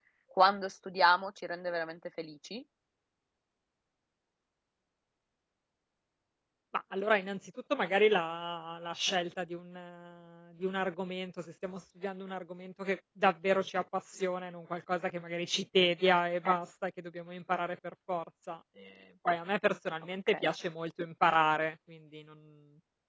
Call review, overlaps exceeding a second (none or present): none